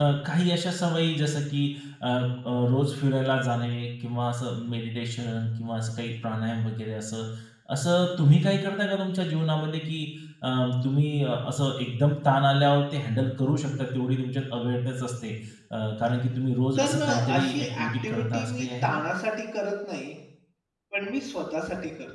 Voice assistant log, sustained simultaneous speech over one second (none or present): present